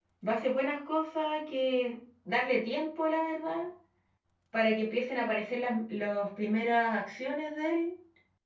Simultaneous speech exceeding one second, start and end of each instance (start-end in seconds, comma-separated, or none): none